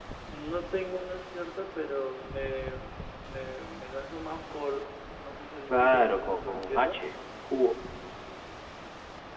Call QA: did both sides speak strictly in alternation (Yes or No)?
No